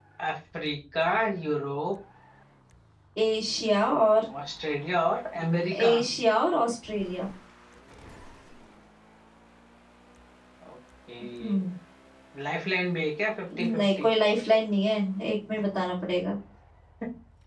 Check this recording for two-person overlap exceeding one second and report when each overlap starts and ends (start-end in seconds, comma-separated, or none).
none